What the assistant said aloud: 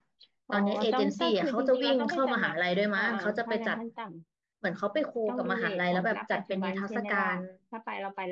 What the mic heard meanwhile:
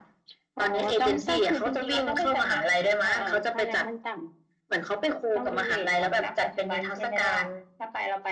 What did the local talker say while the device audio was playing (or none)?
none